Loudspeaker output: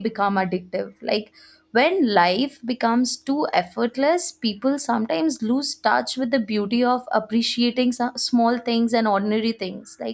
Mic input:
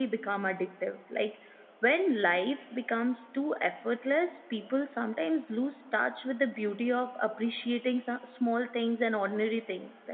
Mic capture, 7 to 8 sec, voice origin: echo only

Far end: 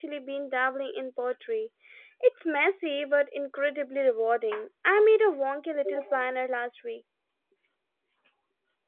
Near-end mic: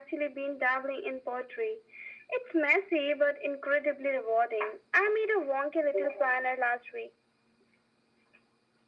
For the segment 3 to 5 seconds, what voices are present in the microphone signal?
echo only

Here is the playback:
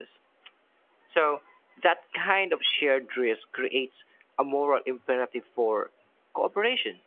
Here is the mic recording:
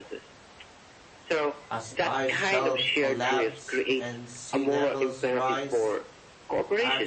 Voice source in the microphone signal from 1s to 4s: both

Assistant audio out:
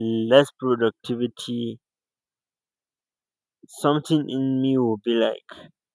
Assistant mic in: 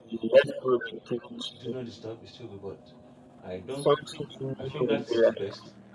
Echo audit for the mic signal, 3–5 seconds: both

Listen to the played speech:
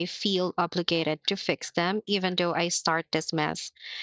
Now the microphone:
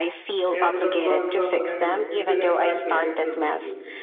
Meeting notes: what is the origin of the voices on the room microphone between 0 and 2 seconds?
both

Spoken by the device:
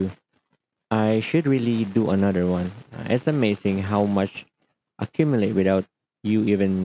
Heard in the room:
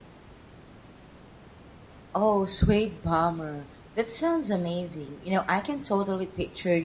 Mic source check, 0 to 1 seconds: neither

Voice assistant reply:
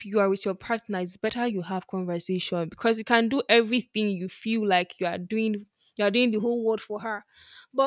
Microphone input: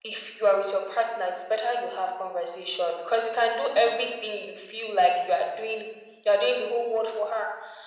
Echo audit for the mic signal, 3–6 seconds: echo only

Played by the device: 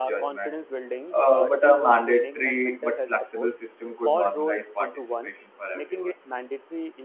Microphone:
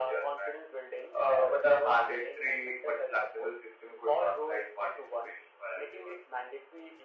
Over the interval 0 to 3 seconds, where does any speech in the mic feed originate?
echo only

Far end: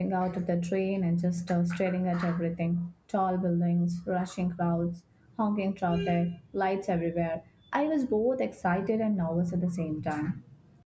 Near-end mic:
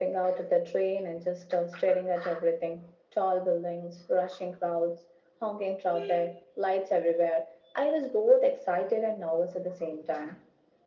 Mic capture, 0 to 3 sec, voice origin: echo only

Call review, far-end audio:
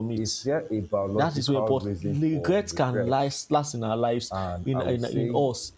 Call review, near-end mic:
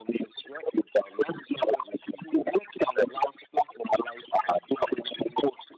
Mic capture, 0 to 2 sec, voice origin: echo only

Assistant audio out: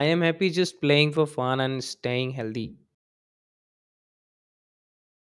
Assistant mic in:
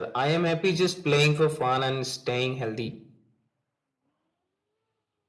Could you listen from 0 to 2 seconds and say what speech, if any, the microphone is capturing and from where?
echo only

